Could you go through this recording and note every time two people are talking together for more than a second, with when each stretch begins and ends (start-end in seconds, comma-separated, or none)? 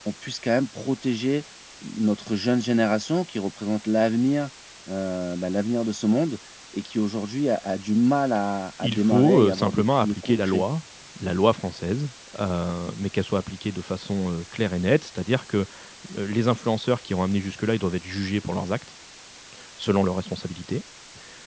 8.8-10.6